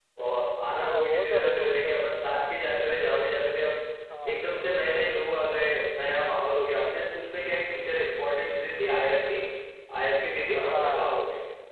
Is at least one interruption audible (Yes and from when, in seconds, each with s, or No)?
Yes, from 0.8 s